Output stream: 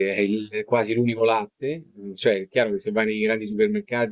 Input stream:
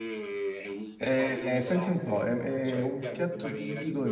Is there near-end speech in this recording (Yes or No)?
Yes